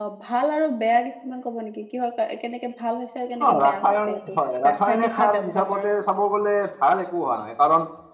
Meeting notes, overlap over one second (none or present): present